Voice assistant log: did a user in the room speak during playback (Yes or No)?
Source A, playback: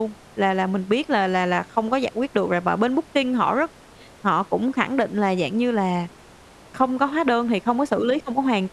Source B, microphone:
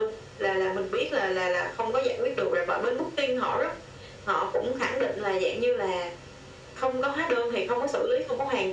No